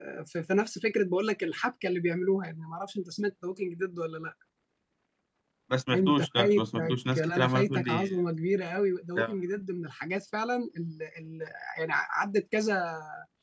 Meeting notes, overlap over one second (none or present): present